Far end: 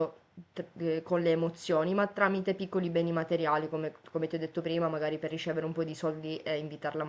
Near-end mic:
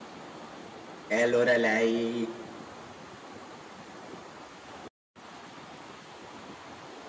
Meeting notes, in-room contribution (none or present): present